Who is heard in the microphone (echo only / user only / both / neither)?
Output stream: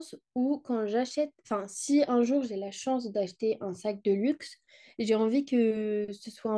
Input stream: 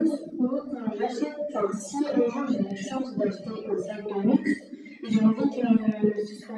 echo only